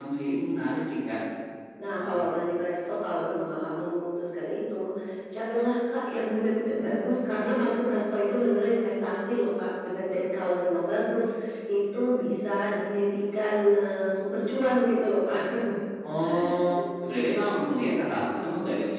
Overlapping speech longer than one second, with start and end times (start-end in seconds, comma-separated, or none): none